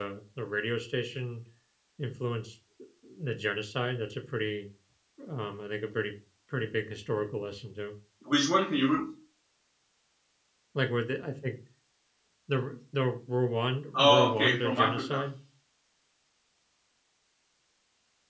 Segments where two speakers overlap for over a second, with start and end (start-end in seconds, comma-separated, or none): 13.9-15.2